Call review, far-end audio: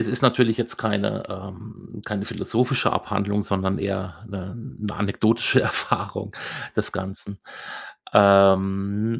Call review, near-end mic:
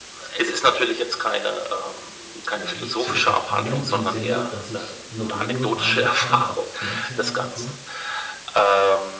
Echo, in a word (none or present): present